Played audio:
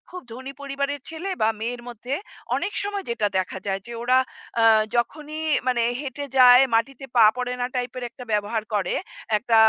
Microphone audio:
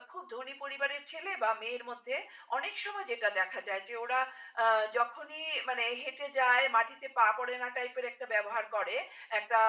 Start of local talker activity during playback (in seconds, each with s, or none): none